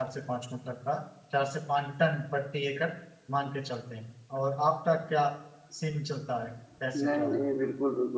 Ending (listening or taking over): taking over